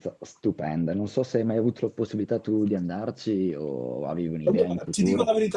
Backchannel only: No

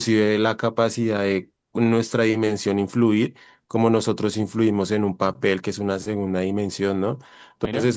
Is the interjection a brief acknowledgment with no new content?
Yes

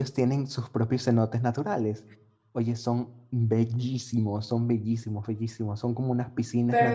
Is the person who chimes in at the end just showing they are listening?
Yes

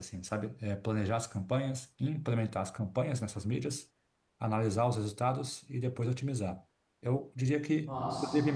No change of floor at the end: Yes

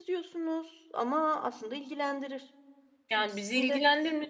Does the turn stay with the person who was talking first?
No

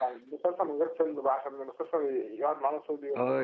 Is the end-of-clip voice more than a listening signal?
Yes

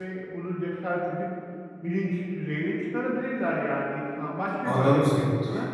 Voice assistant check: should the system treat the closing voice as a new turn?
Yes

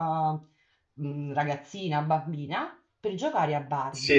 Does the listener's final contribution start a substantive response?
Yes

